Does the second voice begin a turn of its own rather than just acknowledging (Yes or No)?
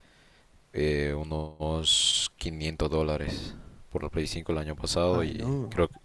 No